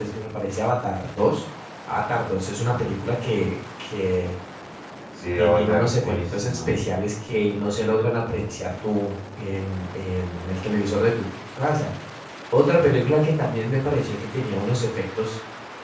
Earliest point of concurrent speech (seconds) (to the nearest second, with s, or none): 5 s